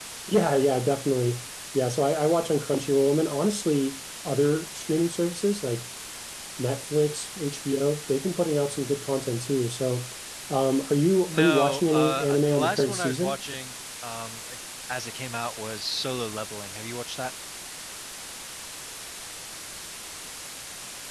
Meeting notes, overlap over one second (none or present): present